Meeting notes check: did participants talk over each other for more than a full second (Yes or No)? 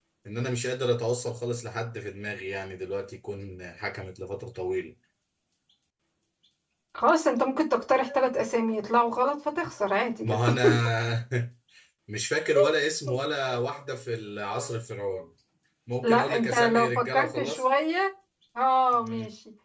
Yes